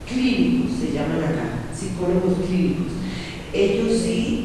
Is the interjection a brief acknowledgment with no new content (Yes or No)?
Yes